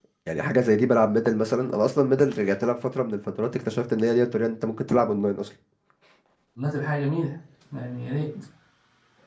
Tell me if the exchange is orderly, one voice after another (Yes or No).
Yes